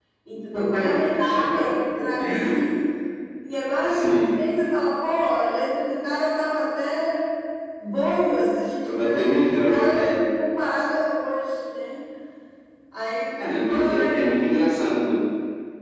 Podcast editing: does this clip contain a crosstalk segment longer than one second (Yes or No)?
Yes